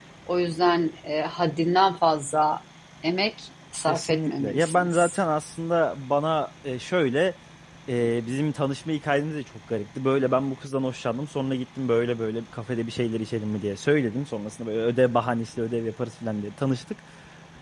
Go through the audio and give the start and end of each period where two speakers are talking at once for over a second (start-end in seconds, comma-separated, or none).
3.9-5.2